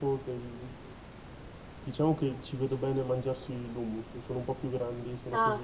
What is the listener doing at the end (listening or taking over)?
taking over